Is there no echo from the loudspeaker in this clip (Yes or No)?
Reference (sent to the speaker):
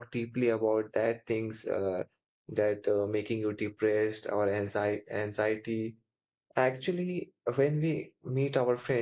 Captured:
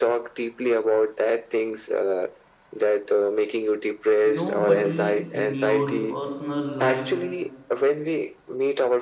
No